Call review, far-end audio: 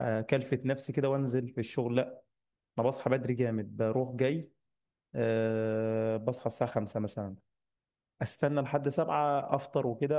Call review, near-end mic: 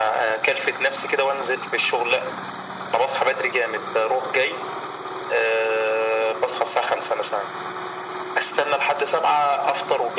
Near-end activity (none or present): none